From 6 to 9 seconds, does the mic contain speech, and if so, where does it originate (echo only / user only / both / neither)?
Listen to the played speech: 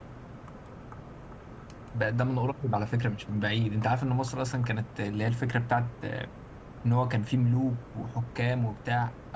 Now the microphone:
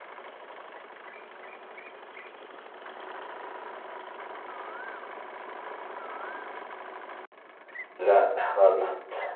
user only